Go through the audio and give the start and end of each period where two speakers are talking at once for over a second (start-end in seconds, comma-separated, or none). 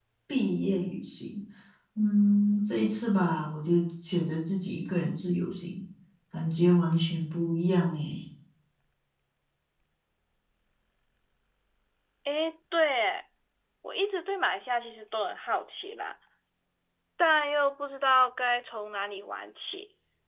none